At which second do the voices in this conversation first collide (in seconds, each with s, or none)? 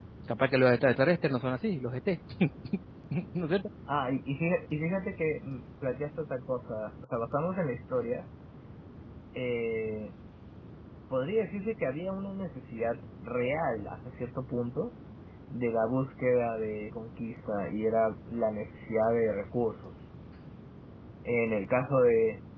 none